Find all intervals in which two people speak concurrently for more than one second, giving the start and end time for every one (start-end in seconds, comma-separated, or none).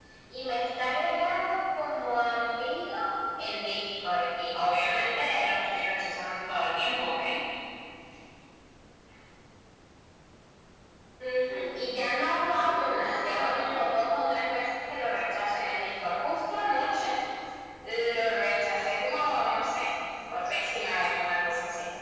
11.5-14.1